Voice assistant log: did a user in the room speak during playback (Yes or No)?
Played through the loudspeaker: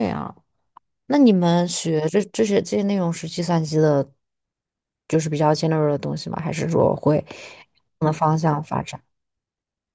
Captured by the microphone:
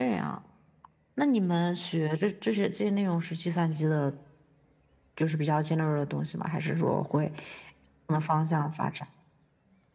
No